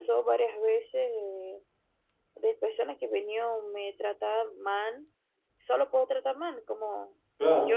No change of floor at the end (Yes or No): Yes